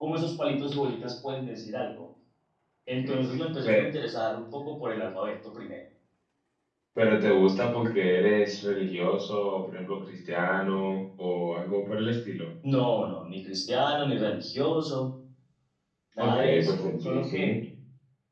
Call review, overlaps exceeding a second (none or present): present